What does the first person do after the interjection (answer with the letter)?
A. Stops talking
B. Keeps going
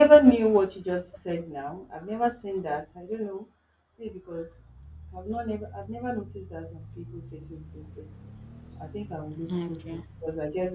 B